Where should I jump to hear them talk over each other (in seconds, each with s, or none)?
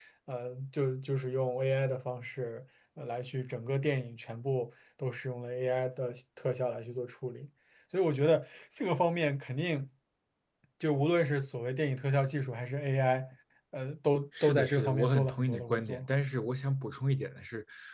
14.3 s